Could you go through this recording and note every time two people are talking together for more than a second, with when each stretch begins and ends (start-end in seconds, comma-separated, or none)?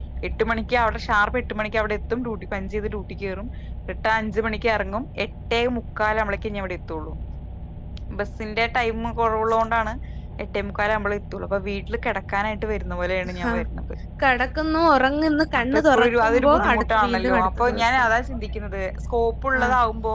15.6-18.1